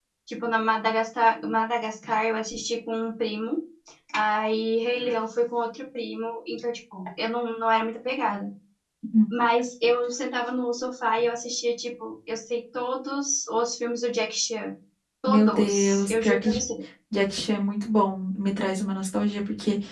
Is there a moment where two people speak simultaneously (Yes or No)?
Yes